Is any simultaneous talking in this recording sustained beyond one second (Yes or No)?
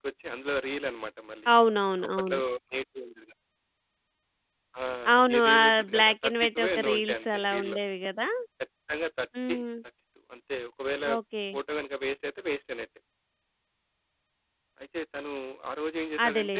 Yes